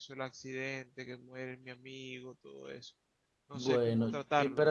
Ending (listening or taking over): taking over